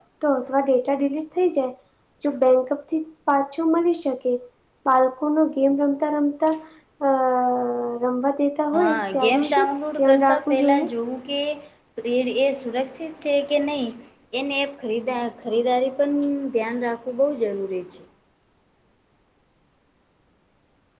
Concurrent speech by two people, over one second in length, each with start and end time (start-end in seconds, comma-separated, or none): 8.8-10.9